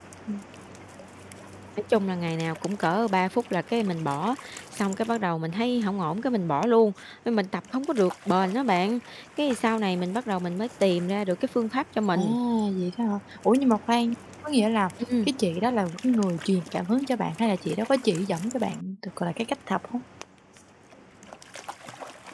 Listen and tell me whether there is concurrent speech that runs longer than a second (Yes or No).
No